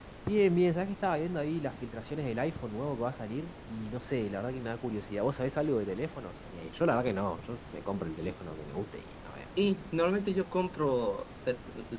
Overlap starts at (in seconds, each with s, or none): none